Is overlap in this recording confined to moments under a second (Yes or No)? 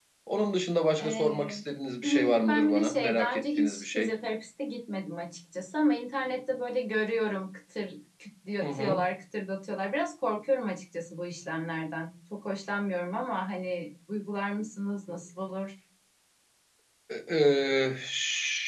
No